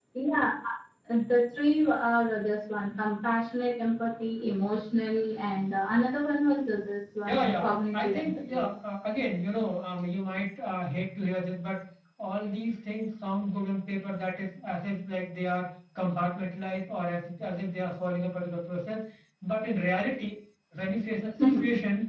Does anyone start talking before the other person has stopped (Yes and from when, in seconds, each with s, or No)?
Yes, from 7.2 s